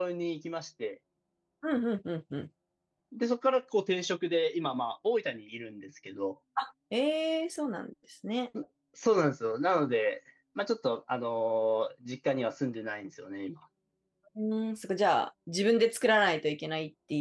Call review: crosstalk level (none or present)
none